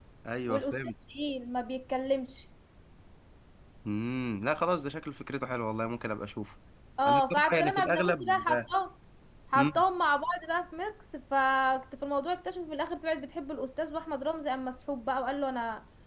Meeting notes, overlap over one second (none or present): present